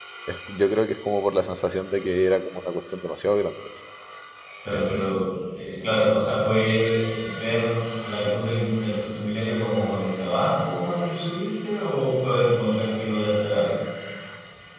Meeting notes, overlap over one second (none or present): none